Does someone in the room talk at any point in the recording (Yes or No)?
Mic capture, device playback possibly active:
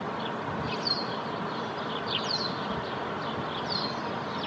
No